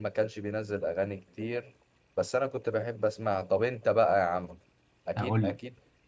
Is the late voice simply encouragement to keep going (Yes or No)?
Yes